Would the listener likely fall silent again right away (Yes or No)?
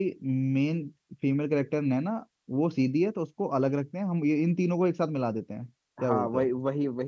No